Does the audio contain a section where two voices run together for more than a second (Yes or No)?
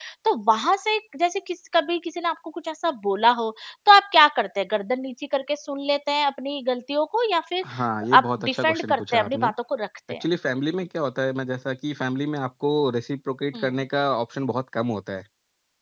Yes